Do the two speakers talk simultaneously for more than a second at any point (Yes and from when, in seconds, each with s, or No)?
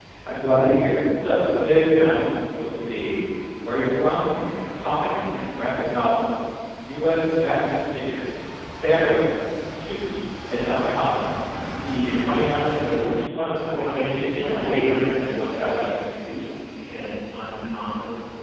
Yes, from 13.6 s